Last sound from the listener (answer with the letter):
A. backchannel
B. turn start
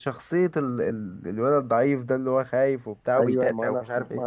B